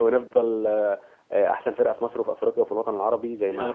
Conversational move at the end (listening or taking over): taking over